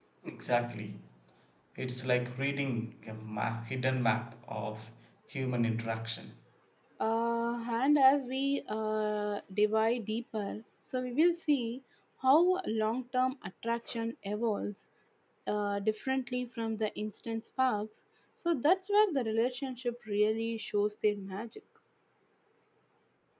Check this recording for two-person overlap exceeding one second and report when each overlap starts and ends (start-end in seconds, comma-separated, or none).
none